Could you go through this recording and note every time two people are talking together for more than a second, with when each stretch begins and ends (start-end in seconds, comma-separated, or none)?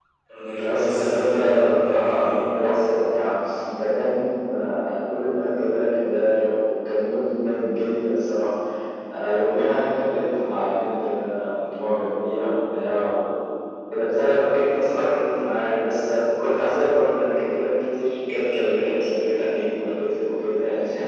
0.6-2.3